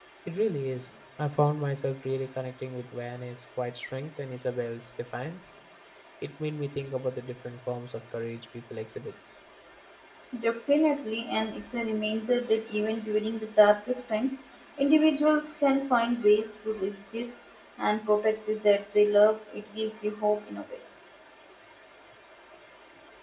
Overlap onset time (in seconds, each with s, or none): none